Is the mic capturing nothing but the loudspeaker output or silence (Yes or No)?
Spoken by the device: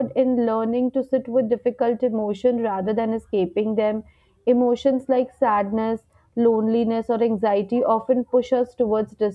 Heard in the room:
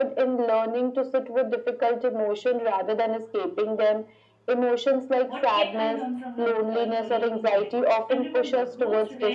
No